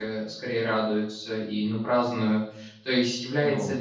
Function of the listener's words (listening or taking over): listening